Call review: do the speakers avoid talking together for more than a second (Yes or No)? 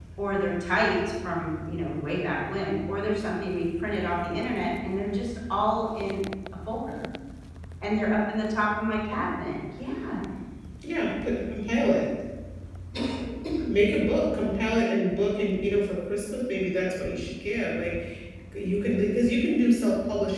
Yes